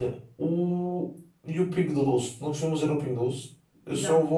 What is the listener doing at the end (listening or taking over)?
listening